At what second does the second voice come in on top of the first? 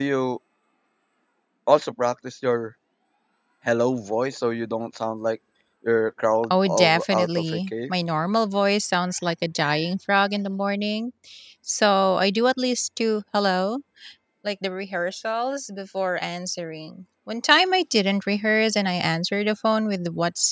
6.5 s

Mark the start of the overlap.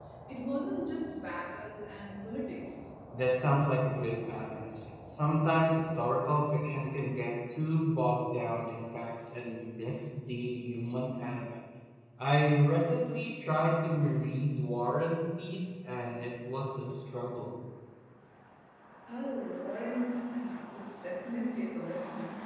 none

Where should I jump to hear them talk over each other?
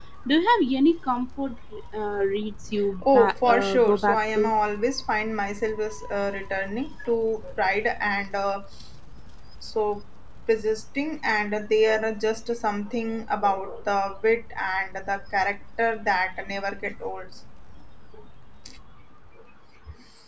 3.0 s

